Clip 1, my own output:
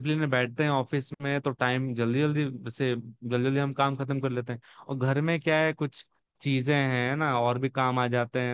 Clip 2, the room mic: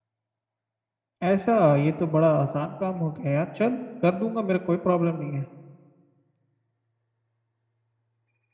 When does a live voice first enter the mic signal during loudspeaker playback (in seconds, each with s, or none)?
1.3 s